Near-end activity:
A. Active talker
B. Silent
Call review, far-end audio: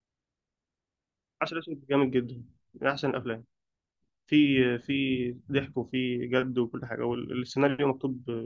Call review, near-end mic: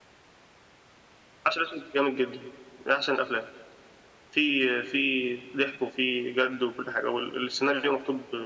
B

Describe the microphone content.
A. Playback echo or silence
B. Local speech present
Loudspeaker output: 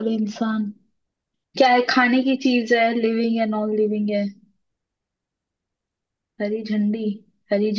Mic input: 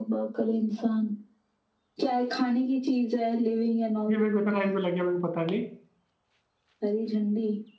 B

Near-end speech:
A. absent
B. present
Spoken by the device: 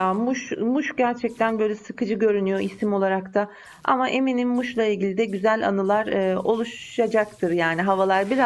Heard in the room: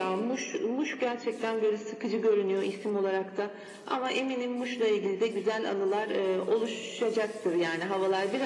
A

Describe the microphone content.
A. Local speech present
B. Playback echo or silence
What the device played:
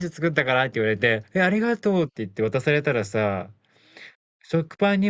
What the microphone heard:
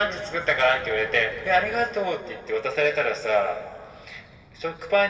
B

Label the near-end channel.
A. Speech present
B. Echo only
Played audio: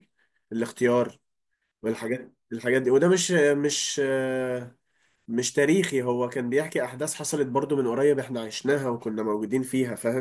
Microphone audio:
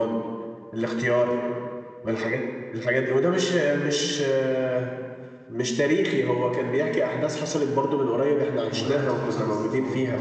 A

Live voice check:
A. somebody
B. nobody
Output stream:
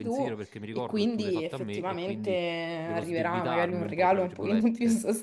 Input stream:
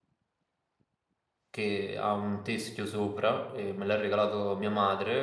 A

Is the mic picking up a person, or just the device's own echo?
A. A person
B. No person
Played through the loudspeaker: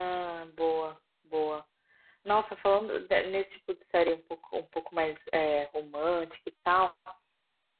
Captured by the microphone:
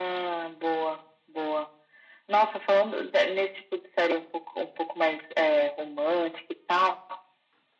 B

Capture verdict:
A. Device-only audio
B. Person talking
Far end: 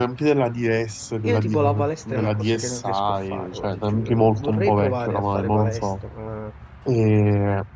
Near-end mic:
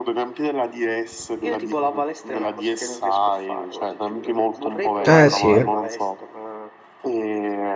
B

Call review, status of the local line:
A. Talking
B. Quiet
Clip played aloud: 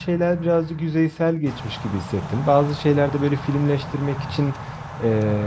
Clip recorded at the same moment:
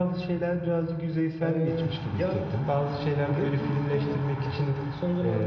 A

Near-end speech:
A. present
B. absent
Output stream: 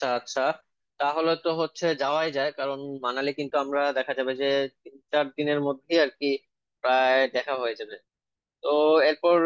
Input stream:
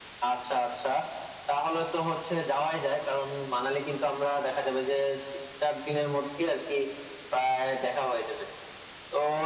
B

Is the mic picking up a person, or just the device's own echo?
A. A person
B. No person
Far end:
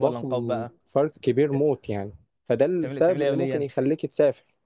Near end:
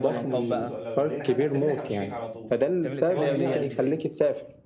A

